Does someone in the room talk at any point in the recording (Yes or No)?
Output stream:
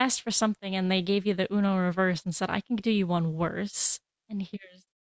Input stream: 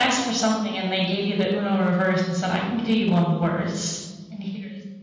No